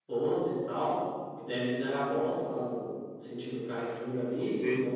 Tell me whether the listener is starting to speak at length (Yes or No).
No